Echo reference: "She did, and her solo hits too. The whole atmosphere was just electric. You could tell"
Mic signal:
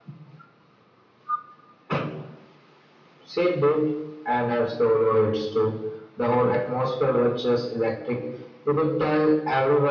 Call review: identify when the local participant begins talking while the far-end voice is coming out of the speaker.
none

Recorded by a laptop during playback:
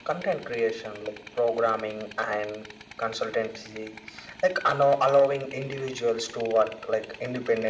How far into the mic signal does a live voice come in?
none

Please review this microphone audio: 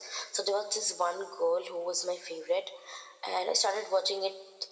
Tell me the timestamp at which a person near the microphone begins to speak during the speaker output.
none

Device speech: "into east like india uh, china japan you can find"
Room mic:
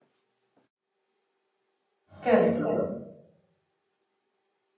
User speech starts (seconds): 2.2 s

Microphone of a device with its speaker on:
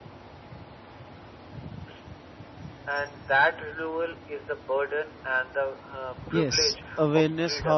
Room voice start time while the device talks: 6.3 s

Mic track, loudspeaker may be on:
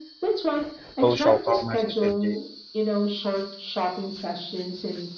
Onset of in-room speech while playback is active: 1.0 s

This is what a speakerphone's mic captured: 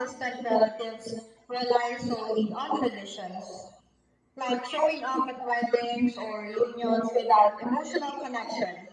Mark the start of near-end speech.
none

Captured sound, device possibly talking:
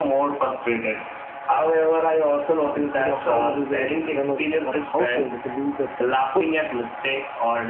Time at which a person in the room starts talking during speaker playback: 2.6 s

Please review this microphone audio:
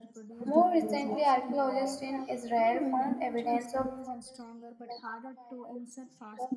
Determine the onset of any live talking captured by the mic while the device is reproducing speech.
0.4 s

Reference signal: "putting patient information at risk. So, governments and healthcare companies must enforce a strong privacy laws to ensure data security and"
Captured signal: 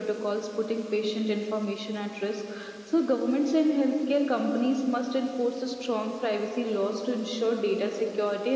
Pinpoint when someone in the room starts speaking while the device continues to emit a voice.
none

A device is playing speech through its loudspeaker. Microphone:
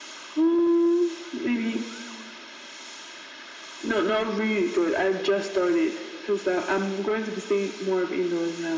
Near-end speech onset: none

